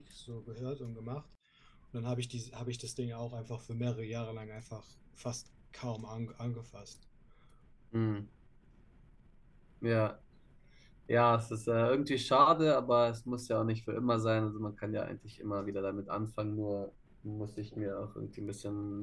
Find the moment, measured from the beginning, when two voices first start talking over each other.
none

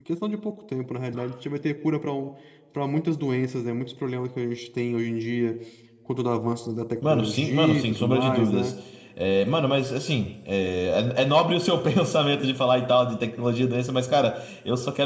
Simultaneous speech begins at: 7 s

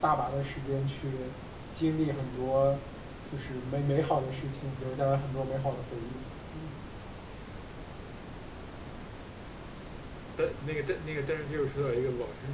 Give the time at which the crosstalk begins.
none

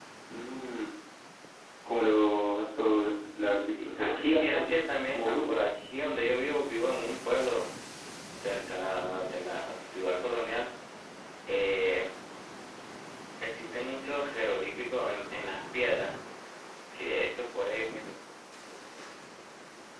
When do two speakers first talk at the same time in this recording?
4 s

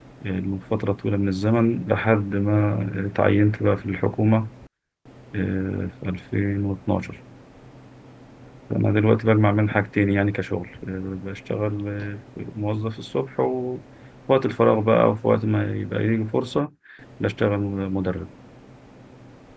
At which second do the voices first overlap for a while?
none

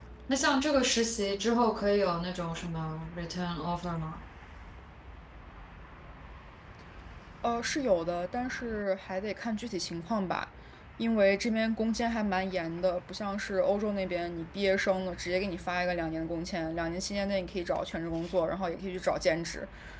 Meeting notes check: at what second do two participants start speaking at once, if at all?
none

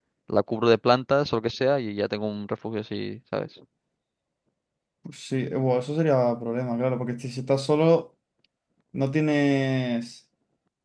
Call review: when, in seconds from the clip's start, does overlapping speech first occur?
none

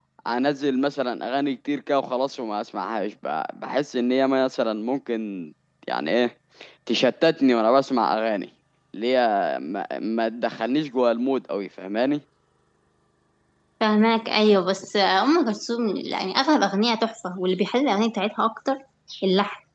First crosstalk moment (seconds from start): none

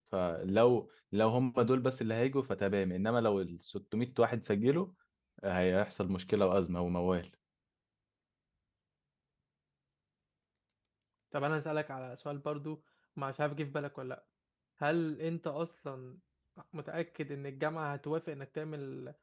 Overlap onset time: none

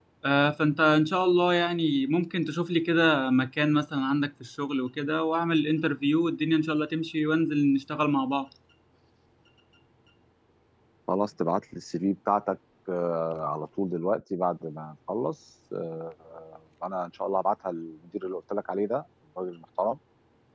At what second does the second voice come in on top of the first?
none

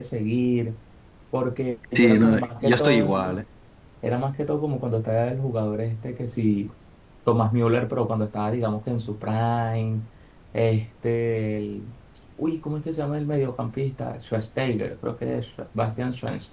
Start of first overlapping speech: 2 s

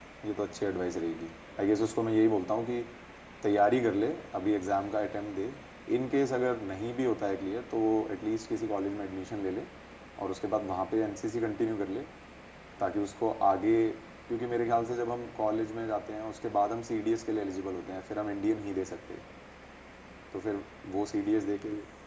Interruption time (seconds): none

